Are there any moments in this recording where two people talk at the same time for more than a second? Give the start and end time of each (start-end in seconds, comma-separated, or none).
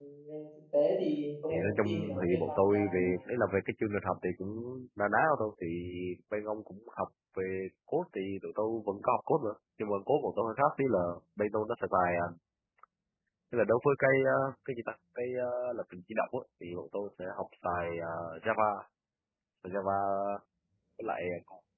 1.5-3.0